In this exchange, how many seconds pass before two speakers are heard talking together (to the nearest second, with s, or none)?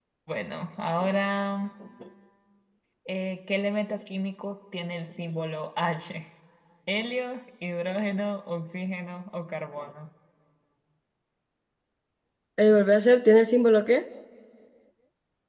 none